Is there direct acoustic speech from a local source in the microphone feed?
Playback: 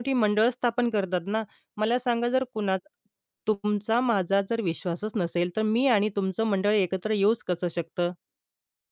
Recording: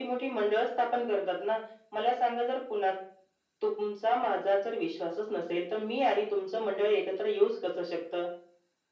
No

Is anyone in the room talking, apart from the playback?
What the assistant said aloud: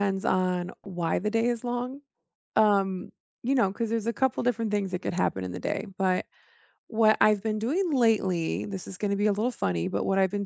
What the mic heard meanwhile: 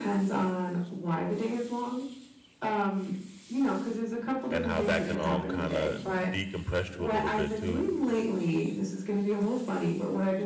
Yes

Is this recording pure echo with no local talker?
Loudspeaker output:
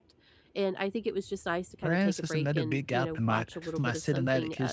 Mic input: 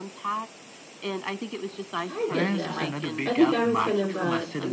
No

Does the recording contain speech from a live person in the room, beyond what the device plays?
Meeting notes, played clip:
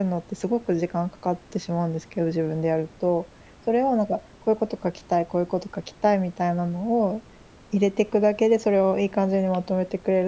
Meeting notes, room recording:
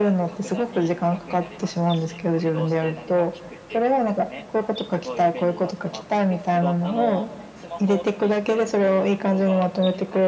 Yes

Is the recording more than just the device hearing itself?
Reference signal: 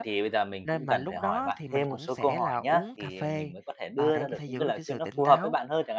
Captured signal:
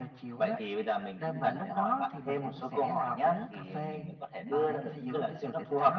No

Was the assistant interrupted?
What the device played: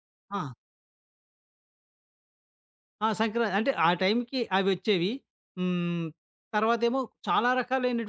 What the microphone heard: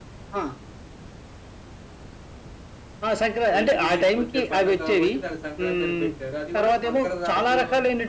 Yes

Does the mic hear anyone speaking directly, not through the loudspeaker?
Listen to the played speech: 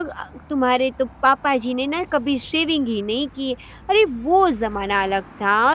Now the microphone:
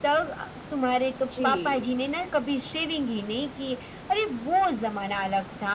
Yes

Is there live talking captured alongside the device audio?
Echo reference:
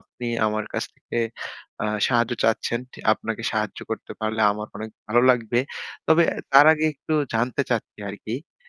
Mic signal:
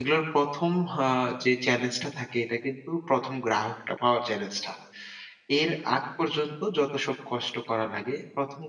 Yes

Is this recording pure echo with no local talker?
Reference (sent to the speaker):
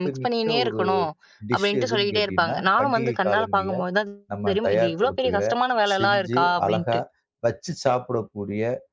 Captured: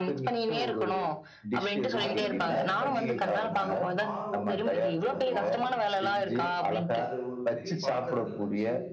No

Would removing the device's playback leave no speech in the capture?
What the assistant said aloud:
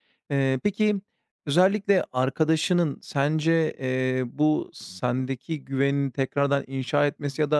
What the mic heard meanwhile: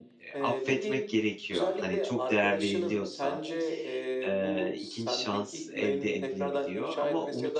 No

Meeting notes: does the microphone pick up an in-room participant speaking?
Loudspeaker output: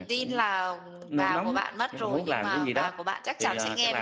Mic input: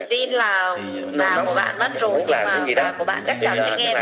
Yes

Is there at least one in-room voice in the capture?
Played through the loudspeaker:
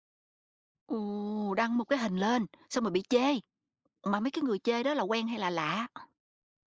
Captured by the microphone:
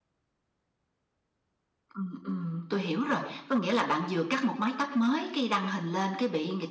Yes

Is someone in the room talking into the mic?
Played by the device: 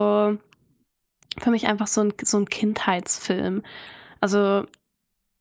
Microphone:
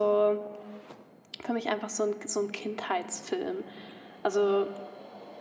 No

